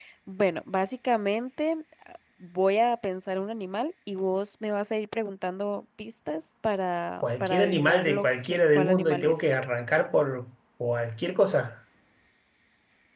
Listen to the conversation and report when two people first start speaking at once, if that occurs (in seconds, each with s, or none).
7.2 s